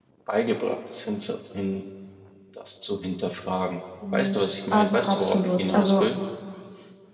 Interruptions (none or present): present